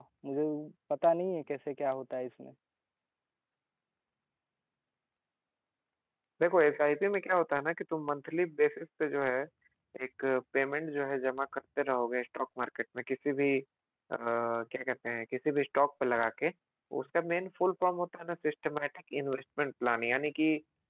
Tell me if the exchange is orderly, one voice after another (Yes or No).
Yes